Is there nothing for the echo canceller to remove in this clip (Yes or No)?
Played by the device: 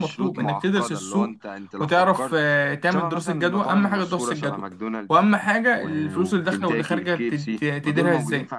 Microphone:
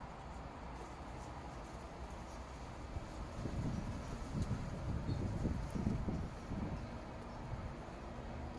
Yes